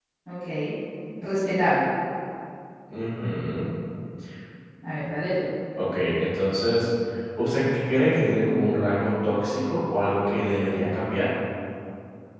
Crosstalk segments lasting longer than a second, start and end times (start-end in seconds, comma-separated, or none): none